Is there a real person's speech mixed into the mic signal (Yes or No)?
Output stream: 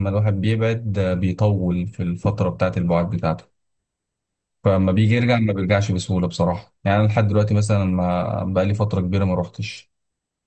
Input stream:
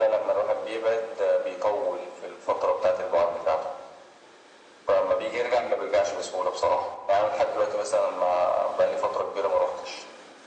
No